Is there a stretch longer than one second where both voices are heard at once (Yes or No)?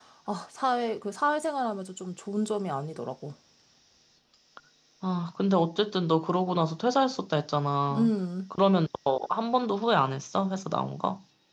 No